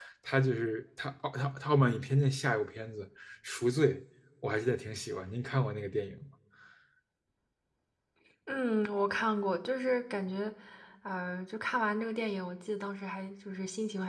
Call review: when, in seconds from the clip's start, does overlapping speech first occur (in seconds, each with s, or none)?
none